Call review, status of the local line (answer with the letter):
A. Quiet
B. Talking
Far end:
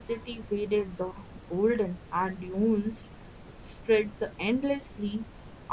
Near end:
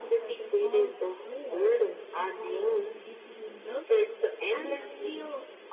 B